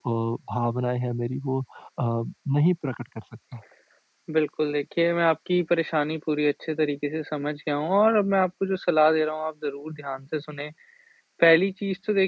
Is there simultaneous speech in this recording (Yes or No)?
No